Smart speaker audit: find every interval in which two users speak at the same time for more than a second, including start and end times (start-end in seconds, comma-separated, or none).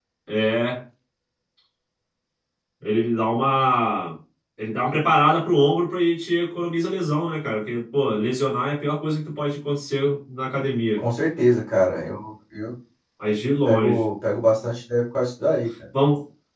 none